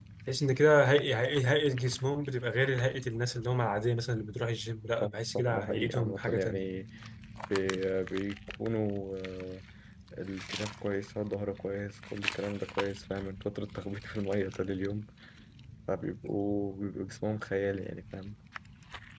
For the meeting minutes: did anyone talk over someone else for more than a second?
Yes, from 5.0 s

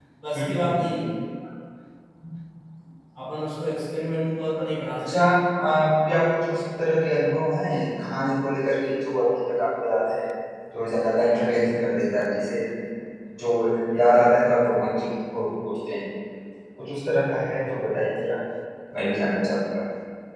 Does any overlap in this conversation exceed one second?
No

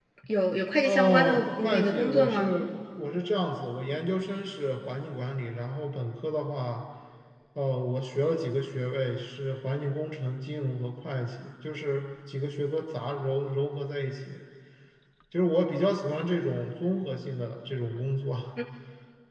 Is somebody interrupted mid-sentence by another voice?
Yes, from 0.8 s

